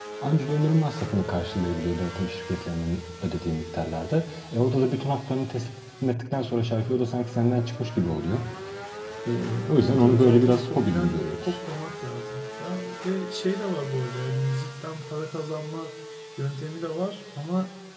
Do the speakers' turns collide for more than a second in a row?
Yes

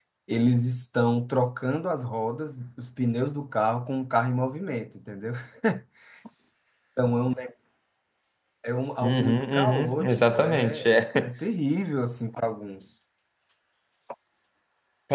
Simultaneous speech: Yes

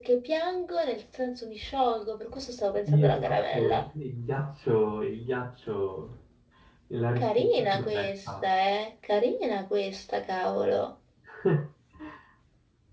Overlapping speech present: Yes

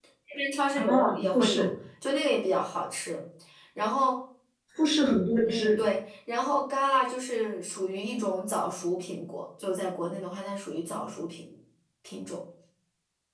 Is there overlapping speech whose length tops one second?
No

